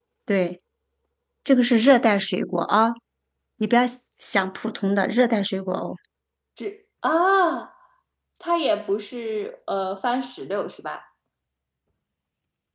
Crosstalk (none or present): none